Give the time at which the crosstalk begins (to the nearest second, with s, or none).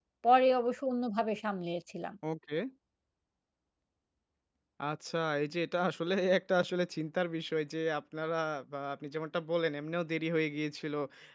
none